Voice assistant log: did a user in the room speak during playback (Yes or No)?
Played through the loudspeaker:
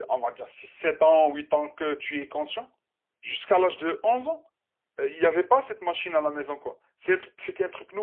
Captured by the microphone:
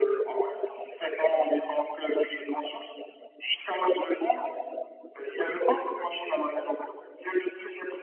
No